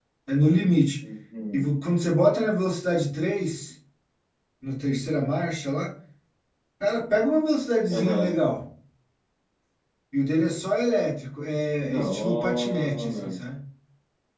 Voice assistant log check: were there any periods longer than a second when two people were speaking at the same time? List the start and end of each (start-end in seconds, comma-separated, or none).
11.8-13.2